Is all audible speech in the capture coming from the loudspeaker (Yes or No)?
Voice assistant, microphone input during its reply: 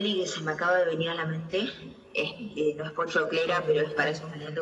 No